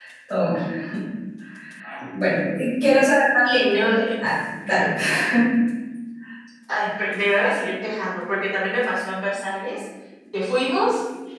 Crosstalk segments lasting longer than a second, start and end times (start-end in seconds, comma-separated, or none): none